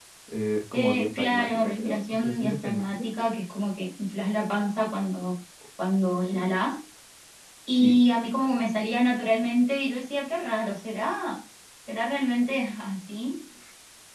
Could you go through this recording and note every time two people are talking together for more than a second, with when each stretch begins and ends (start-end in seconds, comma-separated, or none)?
0.7-3.0